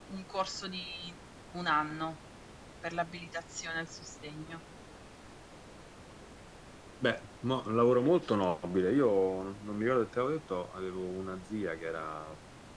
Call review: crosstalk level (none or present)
none